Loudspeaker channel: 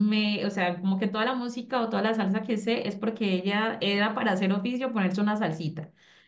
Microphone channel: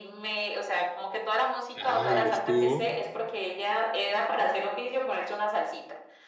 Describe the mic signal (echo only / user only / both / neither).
both